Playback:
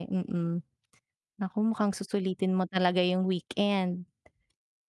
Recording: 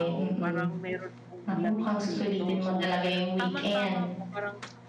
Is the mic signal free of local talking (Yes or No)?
No